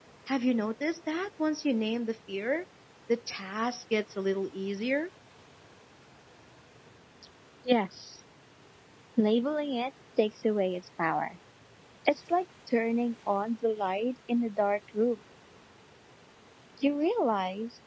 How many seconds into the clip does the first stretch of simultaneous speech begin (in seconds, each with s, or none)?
none